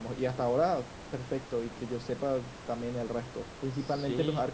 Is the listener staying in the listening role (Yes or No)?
Yes